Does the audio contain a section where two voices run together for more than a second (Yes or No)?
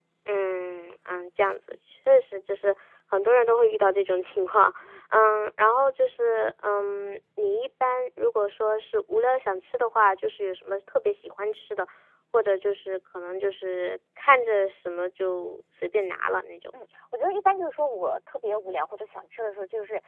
No